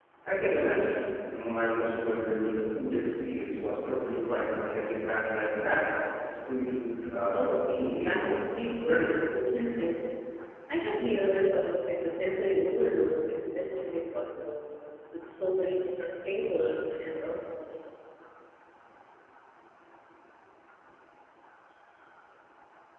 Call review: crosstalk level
present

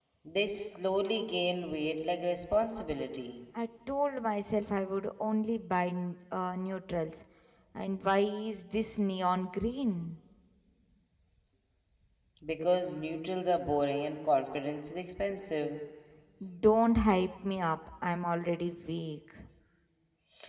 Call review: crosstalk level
none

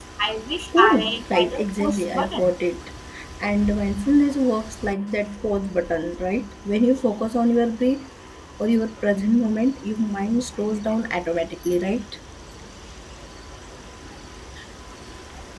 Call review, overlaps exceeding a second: present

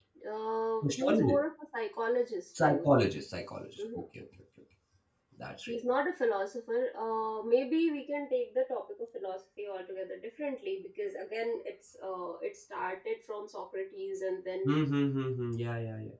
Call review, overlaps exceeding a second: none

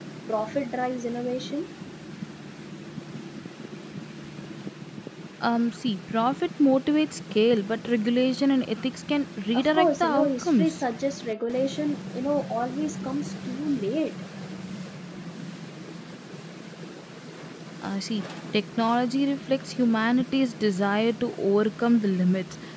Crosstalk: present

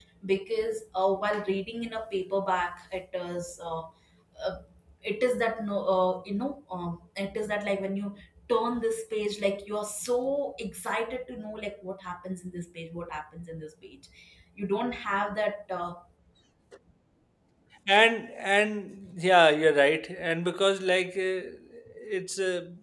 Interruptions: none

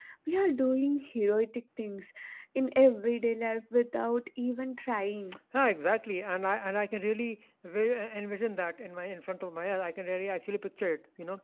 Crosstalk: none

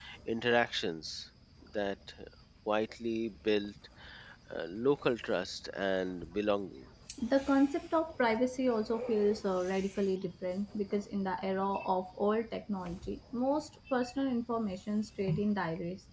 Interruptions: none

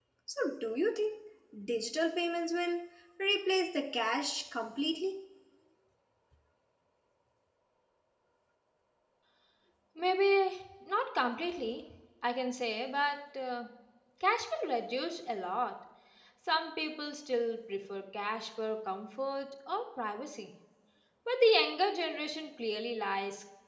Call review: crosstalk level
none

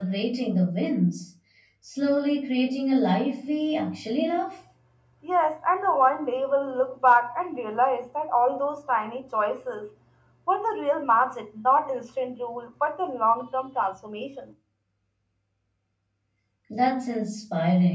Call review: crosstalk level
none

